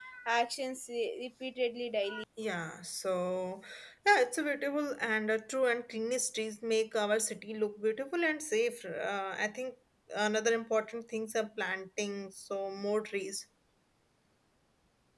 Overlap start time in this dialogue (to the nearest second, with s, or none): none